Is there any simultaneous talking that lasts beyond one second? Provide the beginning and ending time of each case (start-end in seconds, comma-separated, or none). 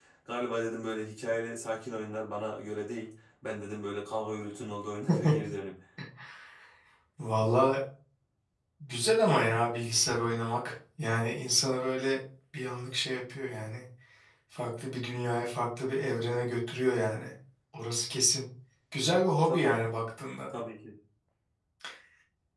none